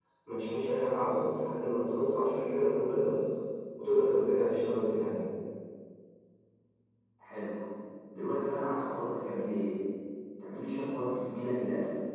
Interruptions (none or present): none